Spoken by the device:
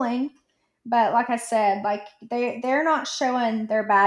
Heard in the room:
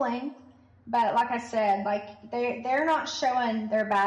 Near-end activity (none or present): none